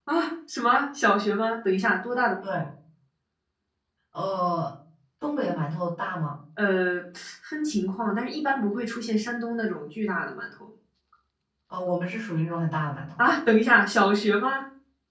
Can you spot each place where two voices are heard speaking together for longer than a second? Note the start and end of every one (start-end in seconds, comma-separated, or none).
none